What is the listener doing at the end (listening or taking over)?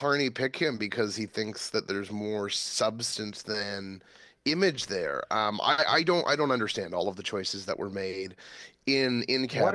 taking over